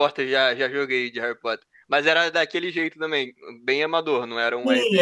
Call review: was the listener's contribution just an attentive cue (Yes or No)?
No